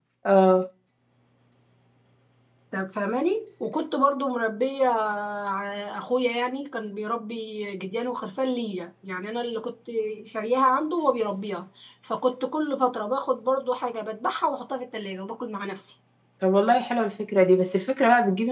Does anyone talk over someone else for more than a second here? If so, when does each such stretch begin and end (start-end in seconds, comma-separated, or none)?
none